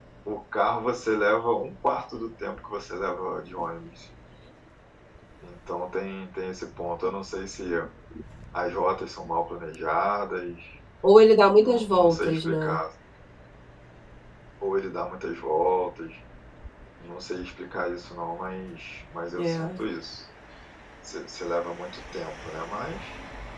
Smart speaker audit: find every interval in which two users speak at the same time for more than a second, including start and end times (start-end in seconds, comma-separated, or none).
11.6-12.8